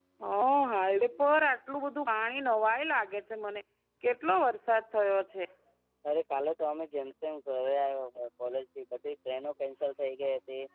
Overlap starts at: none

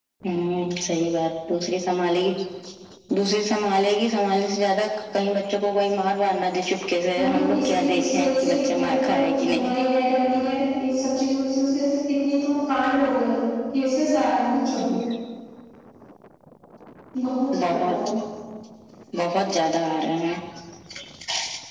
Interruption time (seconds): 7 s

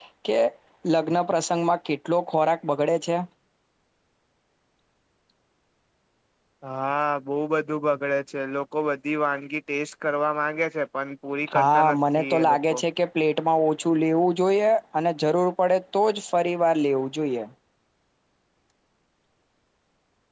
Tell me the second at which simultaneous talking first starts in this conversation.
11 s

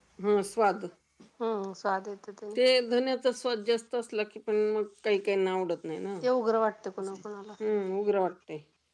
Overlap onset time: none

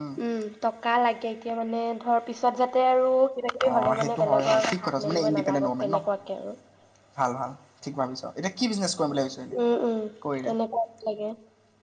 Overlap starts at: 4 s

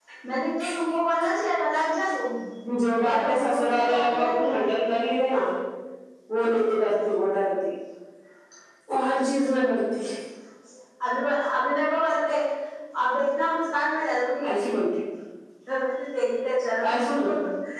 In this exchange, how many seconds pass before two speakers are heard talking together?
3 s

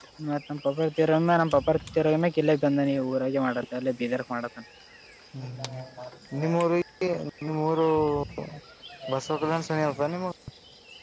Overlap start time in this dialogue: none

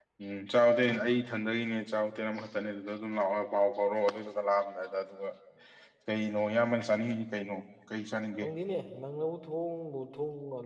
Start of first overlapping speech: none

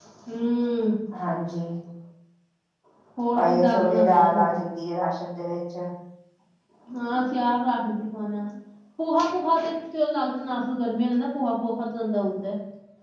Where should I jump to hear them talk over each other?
3 s

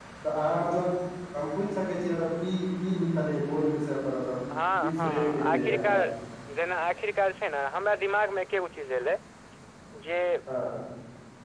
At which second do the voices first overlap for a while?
5 s

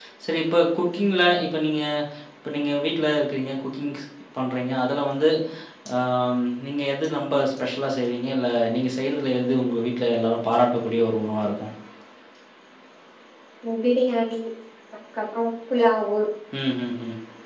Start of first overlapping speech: none

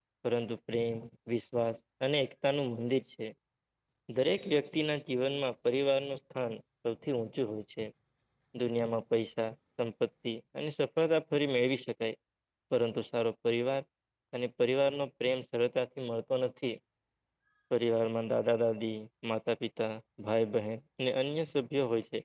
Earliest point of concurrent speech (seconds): none

